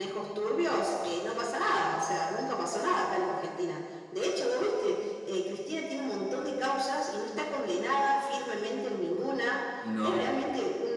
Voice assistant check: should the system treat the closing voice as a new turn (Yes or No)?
No